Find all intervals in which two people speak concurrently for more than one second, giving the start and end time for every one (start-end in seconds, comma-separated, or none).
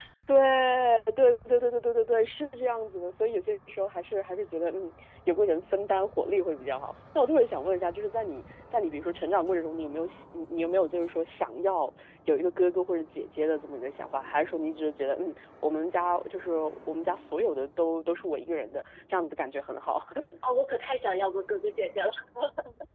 none